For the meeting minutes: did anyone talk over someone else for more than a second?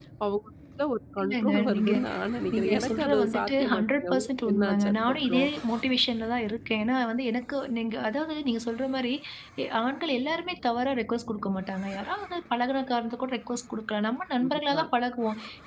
Yes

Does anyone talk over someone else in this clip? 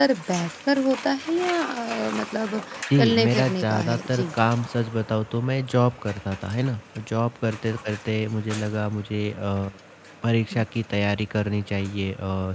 Yes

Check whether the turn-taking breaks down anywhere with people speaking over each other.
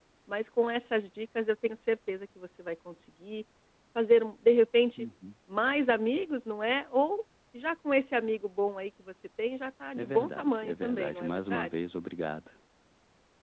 Yes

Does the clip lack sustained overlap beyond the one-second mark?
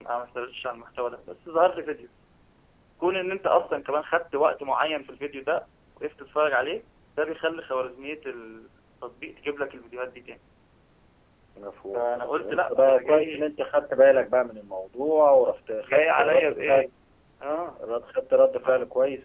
No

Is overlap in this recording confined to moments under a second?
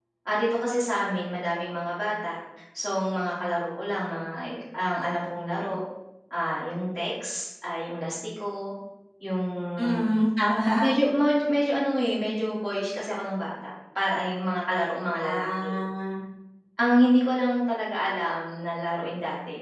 Yes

